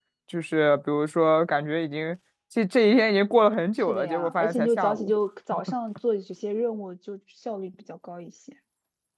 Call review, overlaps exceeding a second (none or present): present